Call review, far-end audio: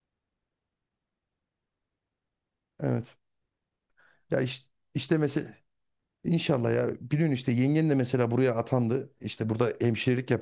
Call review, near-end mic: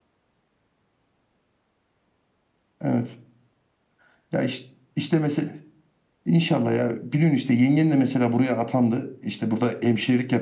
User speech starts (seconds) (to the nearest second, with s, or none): none